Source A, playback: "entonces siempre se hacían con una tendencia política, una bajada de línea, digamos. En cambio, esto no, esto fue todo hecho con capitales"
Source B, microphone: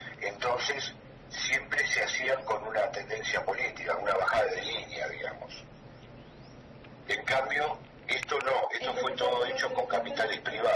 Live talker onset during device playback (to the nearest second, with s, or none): 9 s